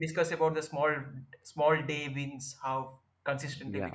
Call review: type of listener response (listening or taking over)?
taking over